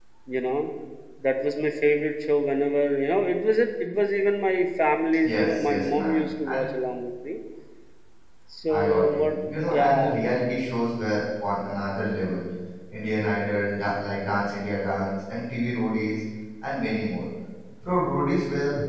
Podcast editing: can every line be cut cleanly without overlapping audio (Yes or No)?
No